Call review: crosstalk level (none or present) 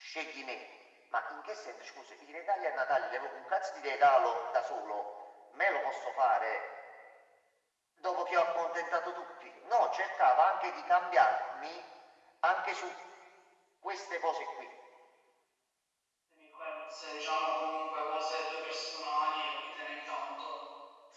none